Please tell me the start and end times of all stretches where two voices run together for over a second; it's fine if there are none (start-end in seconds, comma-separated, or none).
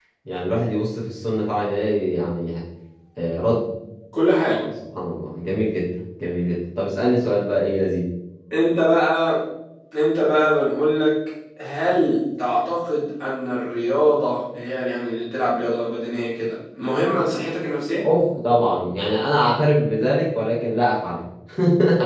none